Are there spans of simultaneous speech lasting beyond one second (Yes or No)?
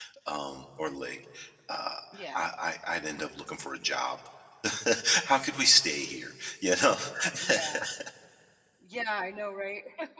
No